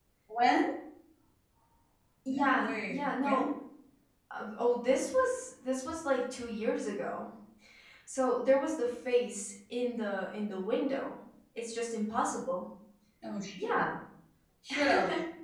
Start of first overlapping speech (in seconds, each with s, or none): 2.3 s